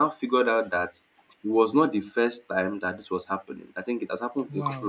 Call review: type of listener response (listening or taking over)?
listening